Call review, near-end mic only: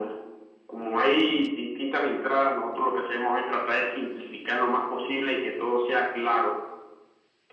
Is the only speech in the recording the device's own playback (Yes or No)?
Yes